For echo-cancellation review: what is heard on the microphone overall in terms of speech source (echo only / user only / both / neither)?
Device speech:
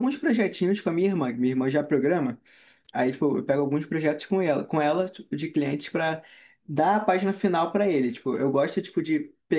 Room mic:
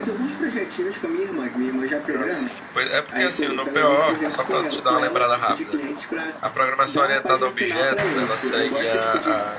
both